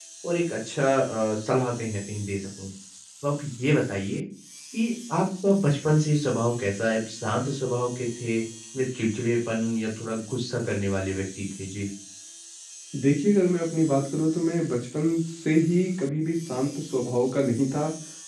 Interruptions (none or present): none